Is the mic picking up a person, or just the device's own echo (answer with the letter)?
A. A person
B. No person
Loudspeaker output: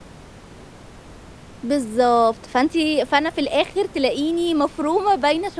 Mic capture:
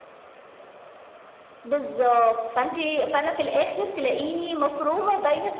B